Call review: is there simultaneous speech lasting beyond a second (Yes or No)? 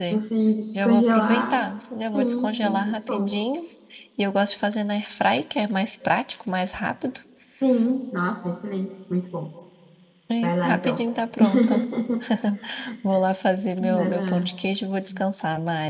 Yes